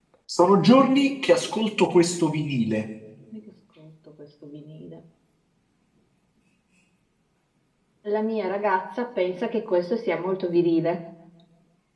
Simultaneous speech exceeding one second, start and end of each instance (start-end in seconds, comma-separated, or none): none